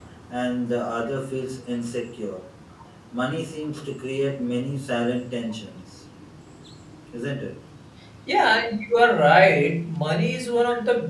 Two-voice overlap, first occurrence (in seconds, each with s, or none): none